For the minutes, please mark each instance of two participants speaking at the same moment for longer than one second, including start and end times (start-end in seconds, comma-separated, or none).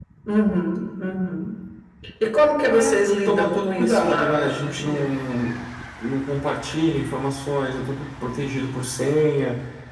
2.6-5.0